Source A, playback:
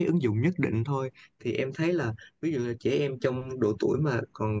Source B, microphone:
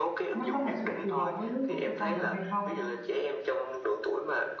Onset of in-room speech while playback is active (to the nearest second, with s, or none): 0 s